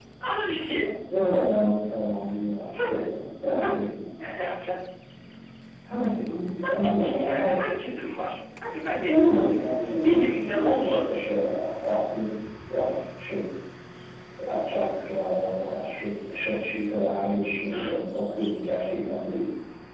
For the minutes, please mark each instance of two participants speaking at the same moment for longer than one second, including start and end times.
6.3-7.5, 10.0-11.4

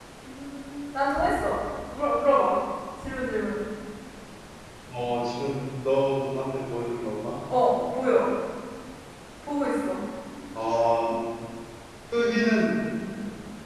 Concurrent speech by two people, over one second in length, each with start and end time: none

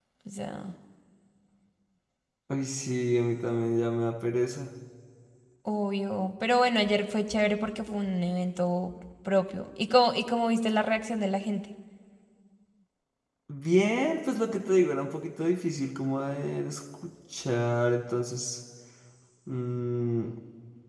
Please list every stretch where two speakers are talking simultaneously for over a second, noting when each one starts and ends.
none

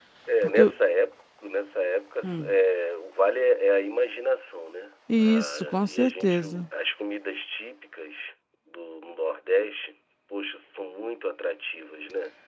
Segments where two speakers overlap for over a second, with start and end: 5.2-6.6

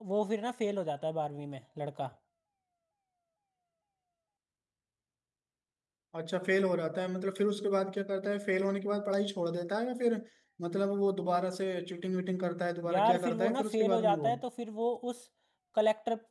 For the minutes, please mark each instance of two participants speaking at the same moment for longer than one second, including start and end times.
12.9-14.3

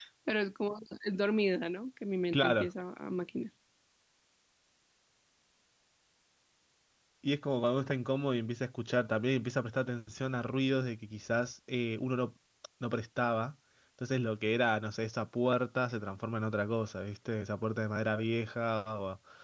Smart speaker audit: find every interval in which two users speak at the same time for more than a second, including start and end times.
none

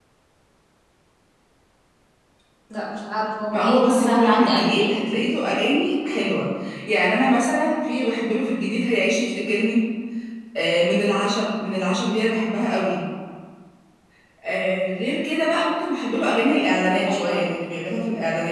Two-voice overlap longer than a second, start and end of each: 3.5-5.0

